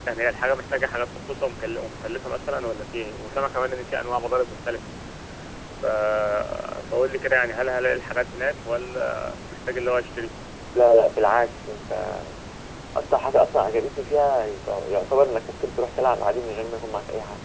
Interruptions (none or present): none